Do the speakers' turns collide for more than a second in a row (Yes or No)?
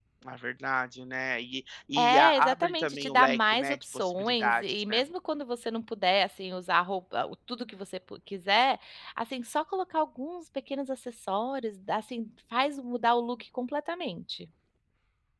Yes